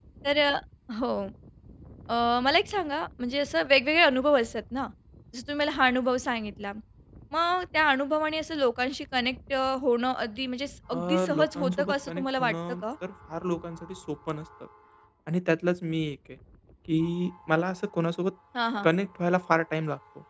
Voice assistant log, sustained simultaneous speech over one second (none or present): present